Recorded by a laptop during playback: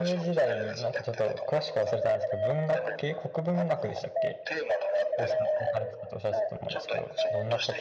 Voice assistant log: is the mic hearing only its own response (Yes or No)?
No